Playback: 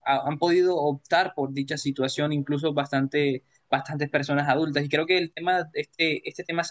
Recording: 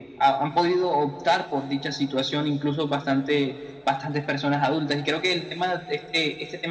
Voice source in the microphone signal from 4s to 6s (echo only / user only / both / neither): echo only